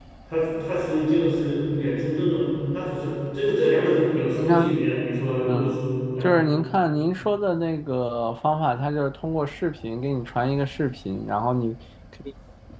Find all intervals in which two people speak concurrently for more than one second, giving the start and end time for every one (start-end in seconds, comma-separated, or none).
none